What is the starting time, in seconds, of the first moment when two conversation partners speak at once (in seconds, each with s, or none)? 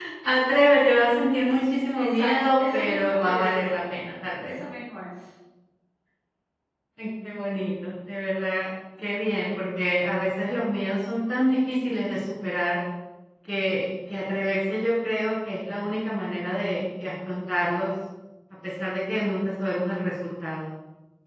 2.0 s